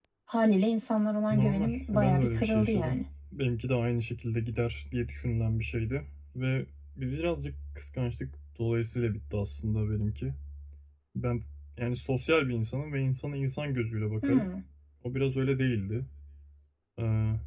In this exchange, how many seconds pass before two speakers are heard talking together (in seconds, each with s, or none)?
1.3 s